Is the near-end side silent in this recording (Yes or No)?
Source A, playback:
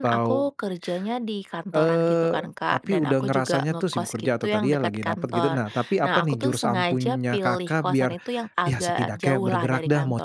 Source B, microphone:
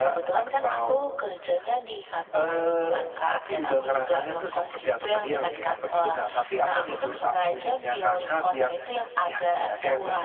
Yes